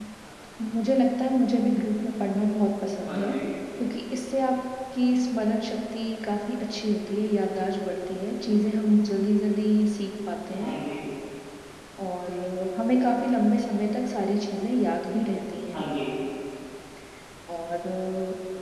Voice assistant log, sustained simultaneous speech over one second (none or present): none